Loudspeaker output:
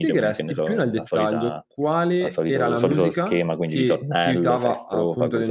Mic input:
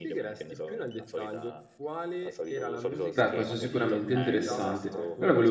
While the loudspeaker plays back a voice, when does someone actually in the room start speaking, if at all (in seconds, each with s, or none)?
3.1 s